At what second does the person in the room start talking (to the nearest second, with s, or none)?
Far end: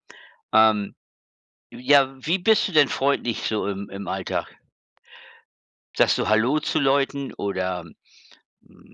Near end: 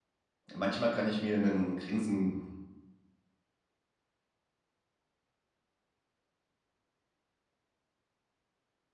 1 s